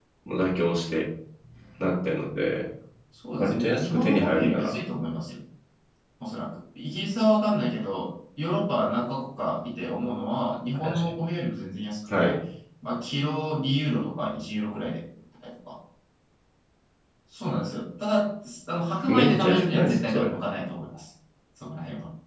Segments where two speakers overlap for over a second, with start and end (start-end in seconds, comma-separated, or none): 3.4-4.8, 19.1-20.4